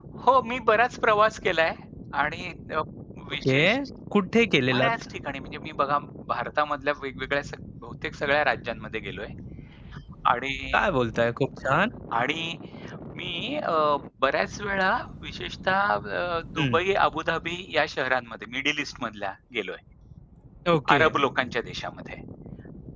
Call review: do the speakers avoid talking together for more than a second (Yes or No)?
Yes